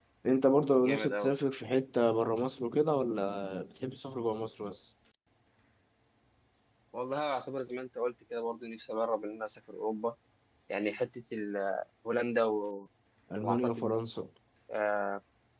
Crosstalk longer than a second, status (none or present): none